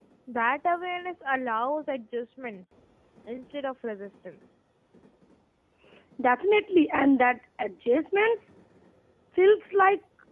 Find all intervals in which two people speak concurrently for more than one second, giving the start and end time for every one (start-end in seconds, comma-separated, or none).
none